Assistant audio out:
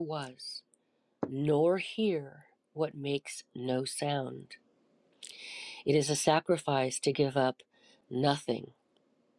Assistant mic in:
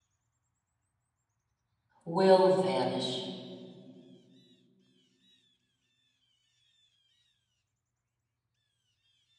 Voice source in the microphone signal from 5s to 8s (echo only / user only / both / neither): neither